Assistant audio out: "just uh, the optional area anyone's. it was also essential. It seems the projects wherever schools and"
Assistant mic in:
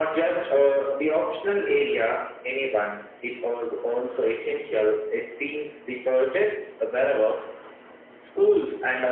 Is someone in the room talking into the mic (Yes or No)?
No